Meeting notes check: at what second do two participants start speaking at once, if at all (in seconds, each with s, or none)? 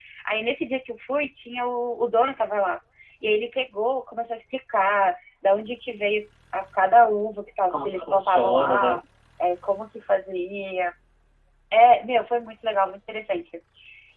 7.7 s